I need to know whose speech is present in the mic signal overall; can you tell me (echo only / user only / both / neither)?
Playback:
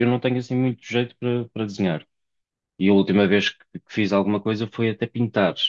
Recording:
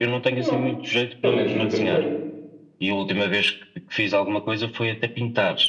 both